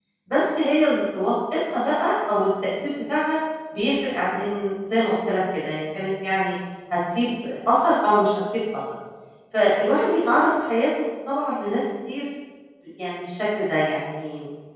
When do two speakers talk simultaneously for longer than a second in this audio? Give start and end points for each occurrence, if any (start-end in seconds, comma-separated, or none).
none